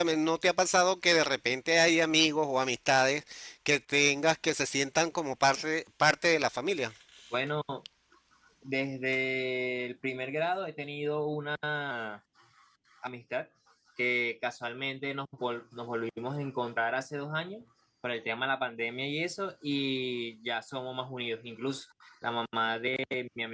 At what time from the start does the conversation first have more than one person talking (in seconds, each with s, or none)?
none